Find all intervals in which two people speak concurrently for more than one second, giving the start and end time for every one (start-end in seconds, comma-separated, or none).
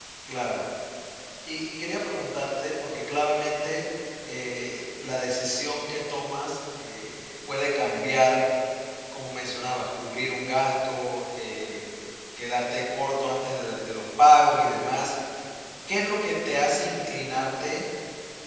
none